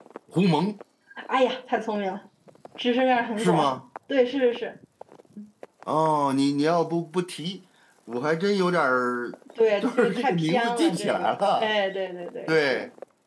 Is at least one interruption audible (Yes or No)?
Yes